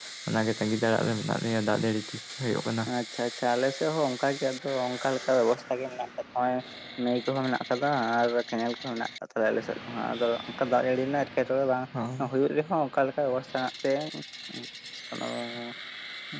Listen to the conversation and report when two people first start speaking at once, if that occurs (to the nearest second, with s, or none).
none